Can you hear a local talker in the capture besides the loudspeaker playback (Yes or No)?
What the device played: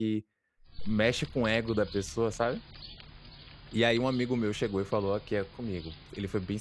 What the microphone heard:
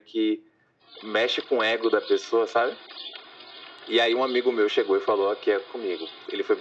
No